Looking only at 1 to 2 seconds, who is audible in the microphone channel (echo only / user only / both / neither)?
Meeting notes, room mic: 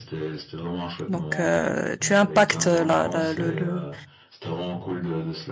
both